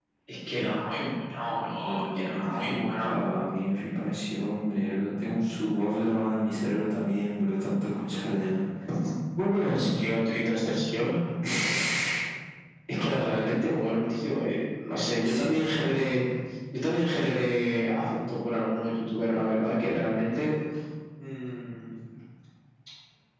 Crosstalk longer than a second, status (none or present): present